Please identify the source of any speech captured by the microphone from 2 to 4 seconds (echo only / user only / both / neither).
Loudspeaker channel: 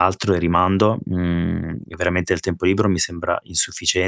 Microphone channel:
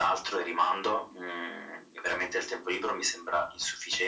echo only